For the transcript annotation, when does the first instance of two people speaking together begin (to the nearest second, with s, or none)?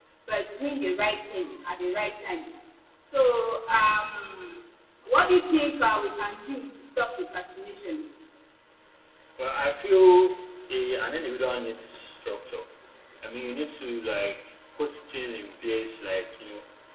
none